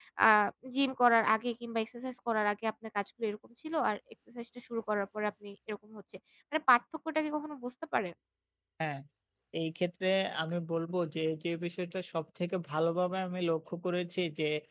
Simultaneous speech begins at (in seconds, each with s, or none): none